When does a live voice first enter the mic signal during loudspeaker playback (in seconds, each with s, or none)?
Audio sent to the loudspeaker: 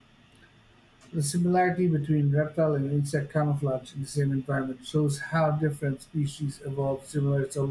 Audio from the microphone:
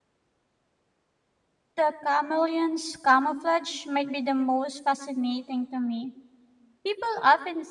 1.7 s